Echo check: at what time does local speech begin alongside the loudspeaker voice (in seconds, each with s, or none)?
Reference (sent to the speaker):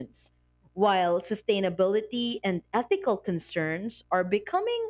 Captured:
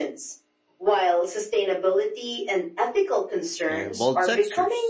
3.7 s